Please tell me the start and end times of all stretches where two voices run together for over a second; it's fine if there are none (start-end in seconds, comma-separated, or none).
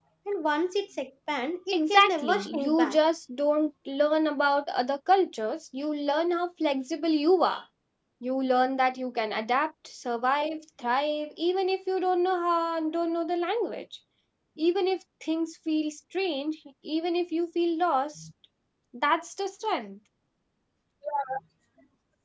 1.7-3.0